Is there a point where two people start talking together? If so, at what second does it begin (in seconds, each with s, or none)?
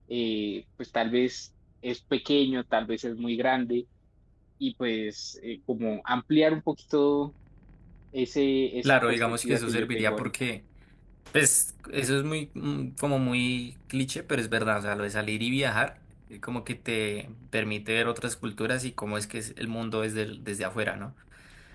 8.8 s